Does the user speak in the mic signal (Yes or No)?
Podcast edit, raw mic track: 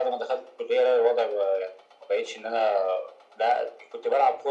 No